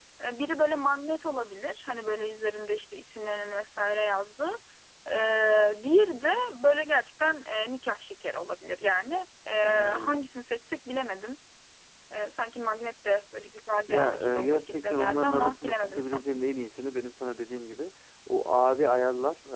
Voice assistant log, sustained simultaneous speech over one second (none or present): present